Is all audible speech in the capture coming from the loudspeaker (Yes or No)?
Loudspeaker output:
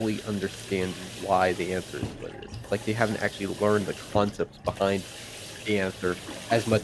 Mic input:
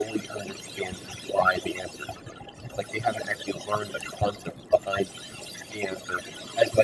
Yes